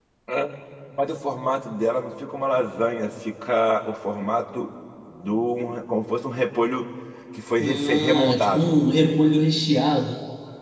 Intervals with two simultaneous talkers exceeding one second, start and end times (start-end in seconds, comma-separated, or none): 7.6-8.8